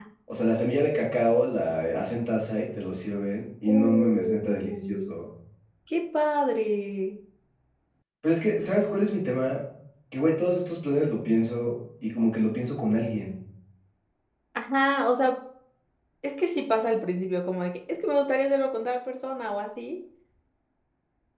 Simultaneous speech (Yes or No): Yes